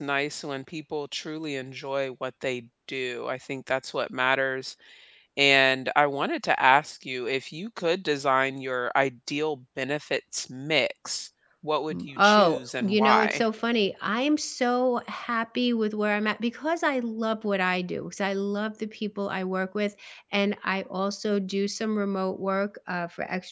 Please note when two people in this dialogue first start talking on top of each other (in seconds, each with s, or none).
11.9 s